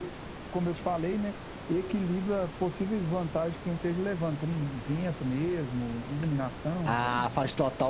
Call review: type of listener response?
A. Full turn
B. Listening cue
A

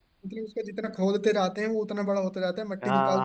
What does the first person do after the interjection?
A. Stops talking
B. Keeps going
A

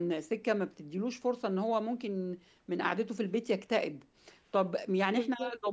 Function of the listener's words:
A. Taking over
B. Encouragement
B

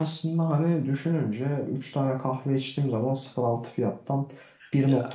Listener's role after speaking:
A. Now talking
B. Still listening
B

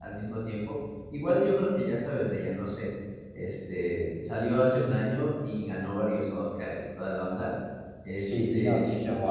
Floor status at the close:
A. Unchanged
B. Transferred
B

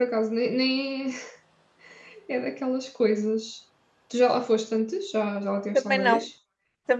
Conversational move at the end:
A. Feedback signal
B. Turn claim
B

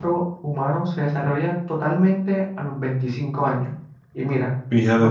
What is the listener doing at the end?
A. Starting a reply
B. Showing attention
B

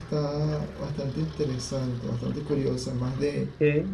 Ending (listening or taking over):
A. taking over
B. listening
B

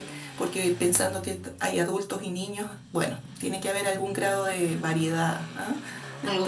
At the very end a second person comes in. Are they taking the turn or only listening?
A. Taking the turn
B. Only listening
B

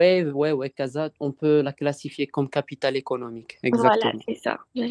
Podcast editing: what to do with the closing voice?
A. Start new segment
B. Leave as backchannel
A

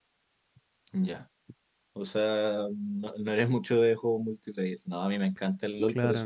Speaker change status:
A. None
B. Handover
A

